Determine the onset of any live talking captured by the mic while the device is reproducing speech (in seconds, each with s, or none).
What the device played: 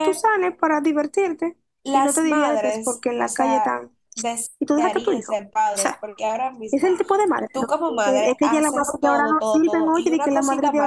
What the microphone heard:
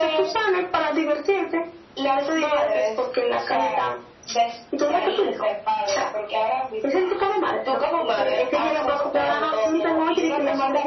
none